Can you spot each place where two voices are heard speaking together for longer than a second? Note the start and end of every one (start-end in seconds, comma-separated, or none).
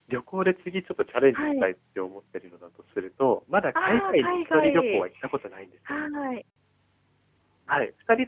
3.8-5.1